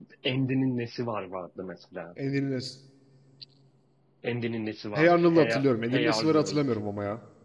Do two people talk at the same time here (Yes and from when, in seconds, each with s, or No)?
Yes, from 5.0 s